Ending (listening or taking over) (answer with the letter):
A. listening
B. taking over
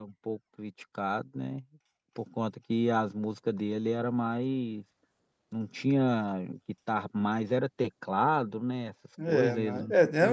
B